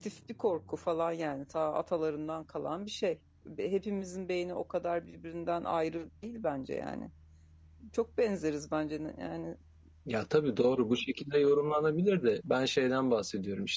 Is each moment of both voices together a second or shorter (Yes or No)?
Yes